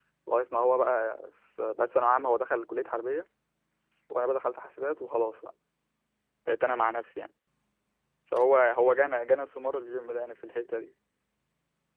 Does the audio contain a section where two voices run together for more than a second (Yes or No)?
No